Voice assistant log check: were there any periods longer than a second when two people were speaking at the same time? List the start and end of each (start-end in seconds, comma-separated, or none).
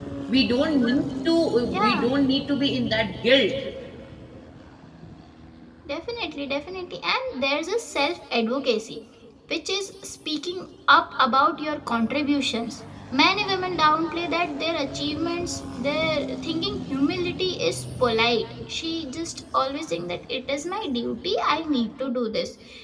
none